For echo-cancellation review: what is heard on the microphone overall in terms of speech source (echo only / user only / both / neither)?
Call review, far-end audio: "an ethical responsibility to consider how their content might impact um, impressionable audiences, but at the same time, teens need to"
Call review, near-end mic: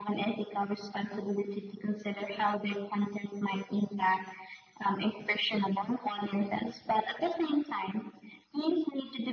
echo only